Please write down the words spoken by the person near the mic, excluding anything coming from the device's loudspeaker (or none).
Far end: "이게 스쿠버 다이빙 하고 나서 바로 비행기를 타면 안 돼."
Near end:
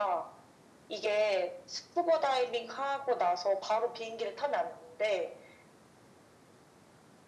none